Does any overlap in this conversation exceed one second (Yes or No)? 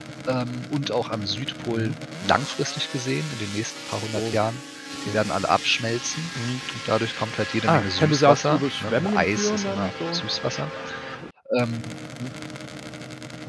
Yes